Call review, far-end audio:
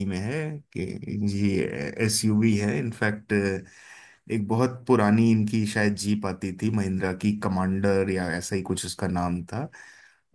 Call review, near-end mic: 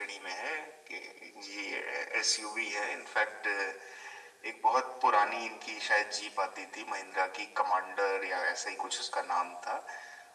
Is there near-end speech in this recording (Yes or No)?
No